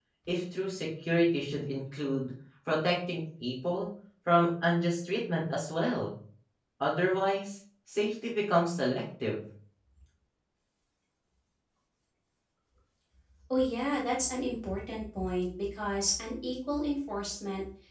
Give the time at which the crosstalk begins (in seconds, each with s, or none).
none